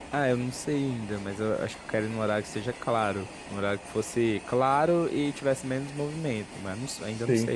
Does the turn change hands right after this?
Yes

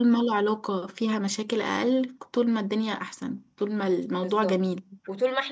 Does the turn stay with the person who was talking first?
No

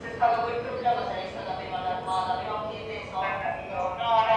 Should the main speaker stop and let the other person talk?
Yes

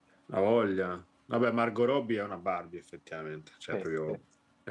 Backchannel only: Yes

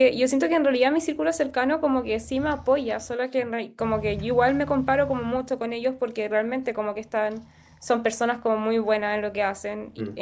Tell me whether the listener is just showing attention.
Yes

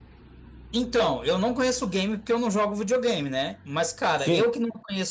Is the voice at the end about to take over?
No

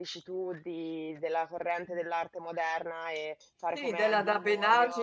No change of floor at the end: No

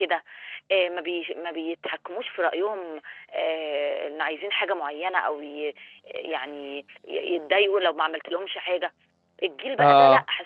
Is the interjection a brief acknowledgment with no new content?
Yes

